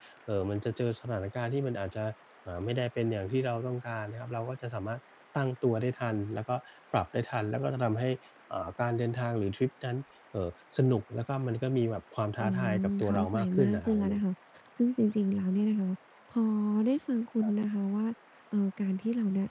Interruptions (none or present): present